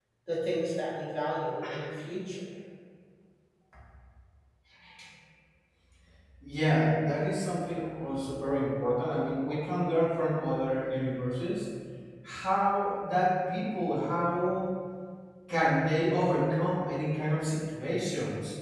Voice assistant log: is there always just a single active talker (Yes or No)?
Yes